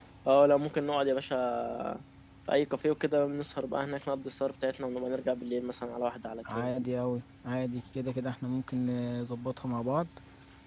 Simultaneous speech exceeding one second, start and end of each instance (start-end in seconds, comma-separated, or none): none